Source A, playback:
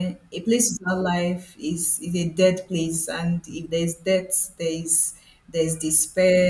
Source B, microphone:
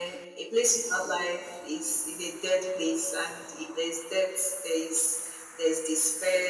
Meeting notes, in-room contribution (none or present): none